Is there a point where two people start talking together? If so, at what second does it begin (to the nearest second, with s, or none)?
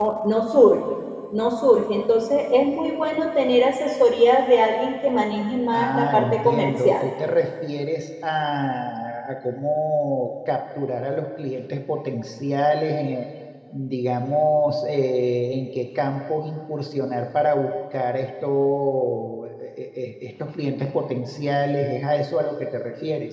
6 s